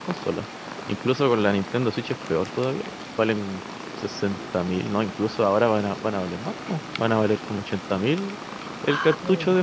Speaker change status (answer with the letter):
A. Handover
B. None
A